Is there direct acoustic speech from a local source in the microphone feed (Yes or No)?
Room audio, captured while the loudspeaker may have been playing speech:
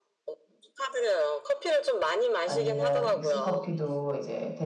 Yes